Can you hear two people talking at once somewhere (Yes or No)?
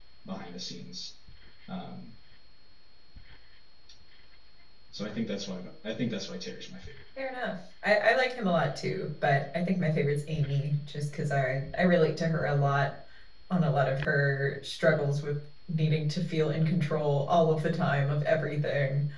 No